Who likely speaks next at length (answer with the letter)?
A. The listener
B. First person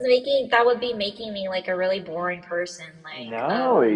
A